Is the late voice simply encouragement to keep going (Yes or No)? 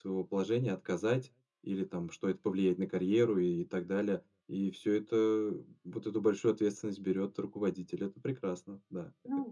No